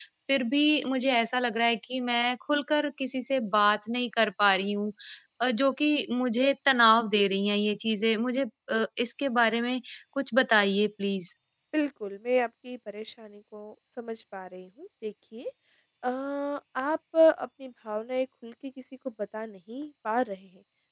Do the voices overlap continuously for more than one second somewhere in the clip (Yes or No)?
No